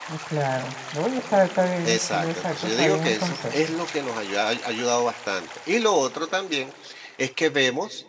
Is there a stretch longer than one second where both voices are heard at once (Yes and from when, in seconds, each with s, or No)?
Yes, from 1.8 s